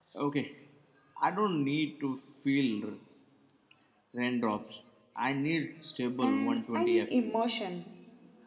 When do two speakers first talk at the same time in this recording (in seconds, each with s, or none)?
6.2 s